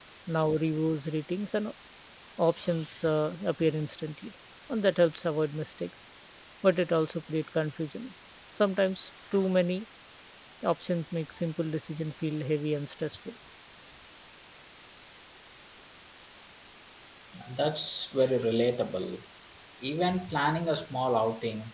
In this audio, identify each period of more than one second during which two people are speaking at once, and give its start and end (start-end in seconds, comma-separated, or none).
none